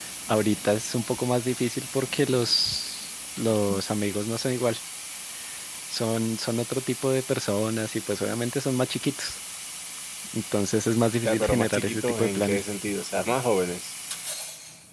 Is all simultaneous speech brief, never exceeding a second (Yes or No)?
No